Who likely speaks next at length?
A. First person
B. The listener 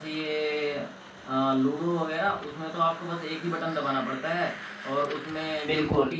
A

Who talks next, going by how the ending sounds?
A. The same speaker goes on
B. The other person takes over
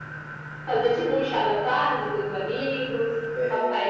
A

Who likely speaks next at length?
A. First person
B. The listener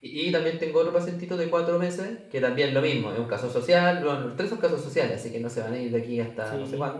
B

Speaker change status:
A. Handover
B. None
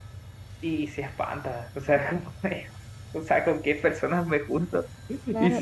A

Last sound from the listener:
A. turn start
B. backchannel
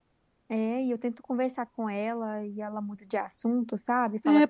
A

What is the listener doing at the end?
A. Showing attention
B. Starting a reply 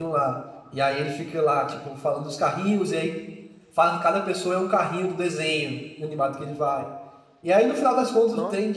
A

